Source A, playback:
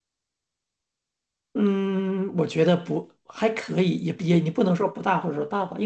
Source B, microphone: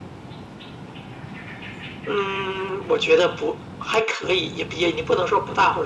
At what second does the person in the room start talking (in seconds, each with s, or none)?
none